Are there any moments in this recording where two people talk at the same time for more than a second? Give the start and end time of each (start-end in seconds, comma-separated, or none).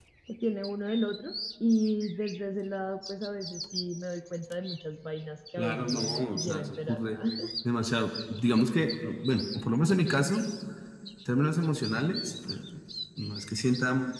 5.6-7.0